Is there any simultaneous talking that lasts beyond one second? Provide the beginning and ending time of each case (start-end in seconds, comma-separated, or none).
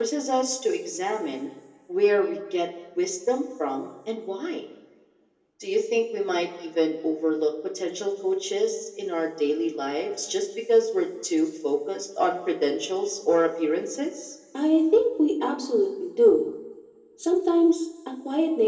none